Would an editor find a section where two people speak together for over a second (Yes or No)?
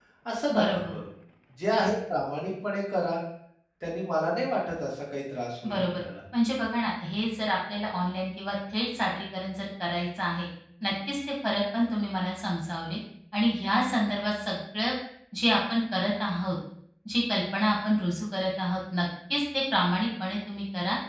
No